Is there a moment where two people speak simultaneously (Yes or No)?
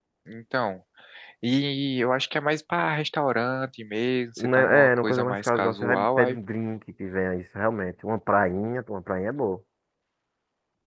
Yes